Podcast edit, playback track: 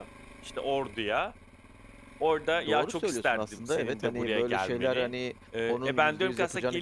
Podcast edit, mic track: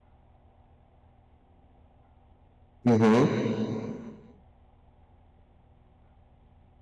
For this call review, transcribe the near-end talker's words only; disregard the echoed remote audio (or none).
Hı hı.